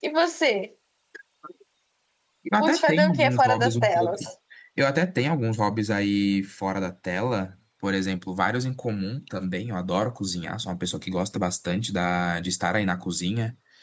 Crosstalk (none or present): present